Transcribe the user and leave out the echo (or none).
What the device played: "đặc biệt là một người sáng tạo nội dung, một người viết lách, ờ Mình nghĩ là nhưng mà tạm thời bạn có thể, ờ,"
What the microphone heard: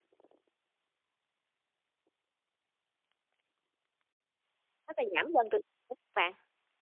tức là giảm dần từ các bạn.